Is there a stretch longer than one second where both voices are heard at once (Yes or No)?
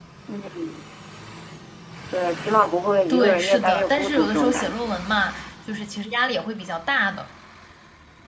Yes